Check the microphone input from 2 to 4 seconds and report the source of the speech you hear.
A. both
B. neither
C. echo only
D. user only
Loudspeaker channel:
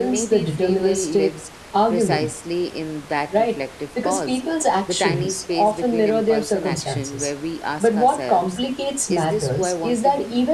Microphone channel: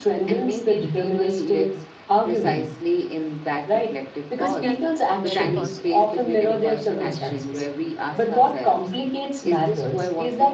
C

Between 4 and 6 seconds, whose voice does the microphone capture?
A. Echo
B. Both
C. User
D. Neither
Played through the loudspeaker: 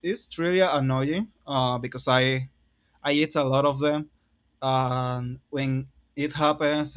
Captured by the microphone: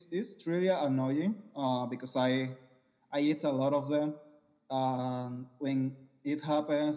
A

